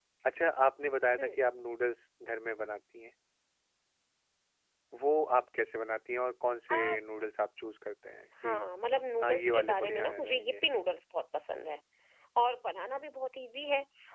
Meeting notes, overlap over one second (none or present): present